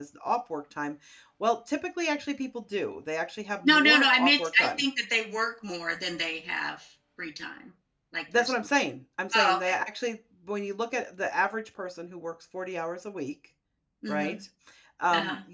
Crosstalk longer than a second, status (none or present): present